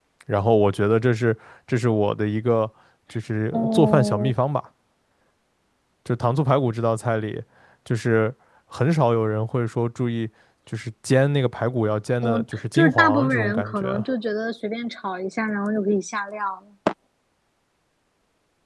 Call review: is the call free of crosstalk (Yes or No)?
No